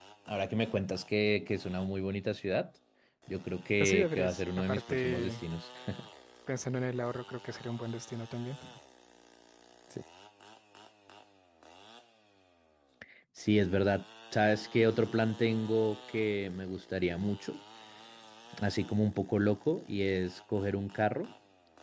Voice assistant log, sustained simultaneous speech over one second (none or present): present